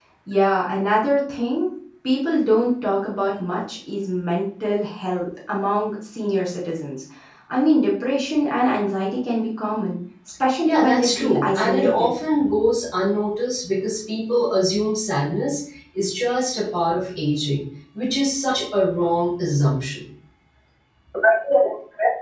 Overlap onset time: 11 s

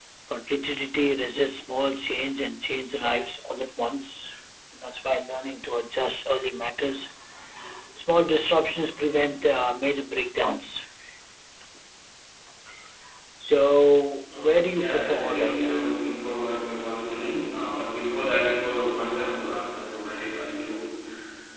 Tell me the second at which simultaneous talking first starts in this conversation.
14 s

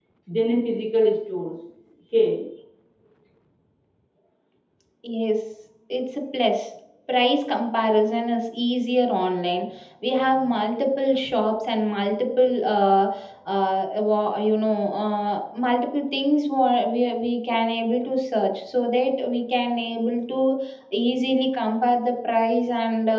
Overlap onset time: none

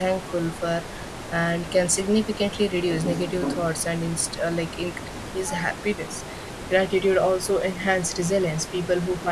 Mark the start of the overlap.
none

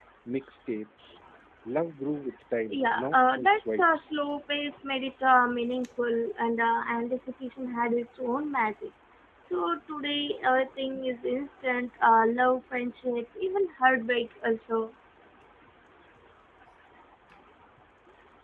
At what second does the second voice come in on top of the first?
3 s

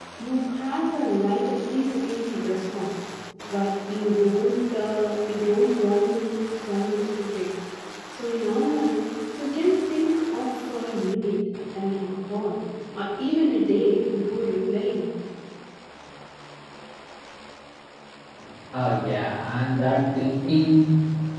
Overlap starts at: none

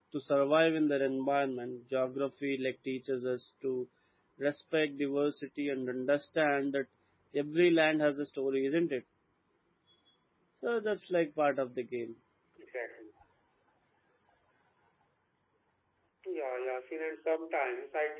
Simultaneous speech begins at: none

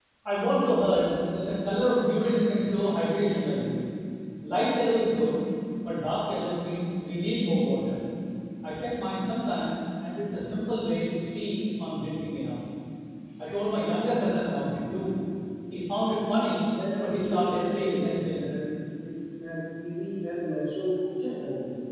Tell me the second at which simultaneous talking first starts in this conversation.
17 s

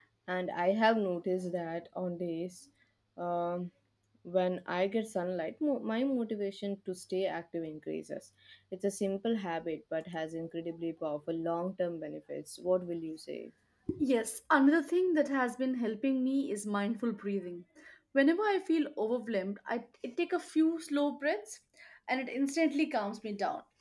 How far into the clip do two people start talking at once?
none

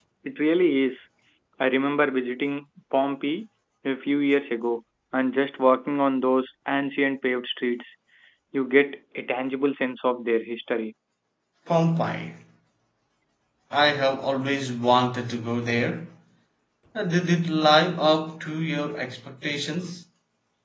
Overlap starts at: none

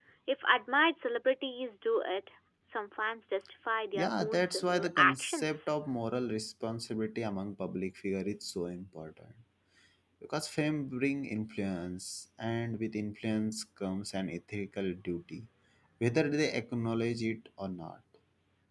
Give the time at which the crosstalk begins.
4 s

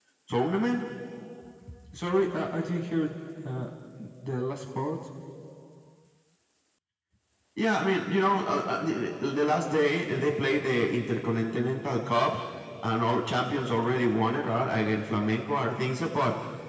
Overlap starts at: none

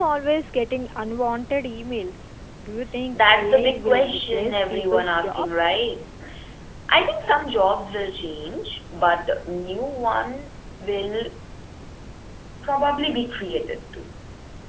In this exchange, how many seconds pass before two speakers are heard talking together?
3 s

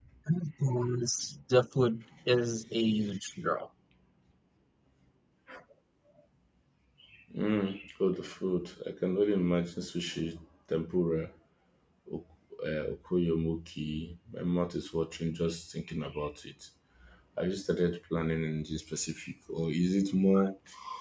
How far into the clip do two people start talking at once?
none

